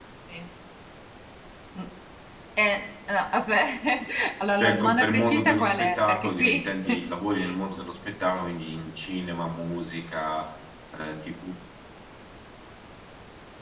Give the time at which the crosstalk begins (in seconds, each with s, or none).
4.6 s